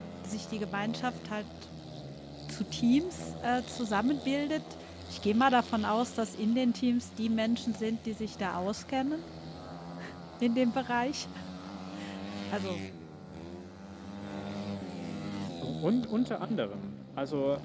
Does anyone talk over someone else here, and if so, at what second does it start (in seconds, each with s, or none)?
none